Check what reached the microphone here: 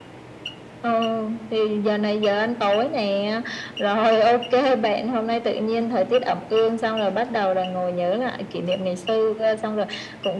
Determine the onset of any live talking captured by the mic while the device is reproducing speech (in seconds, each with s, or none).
none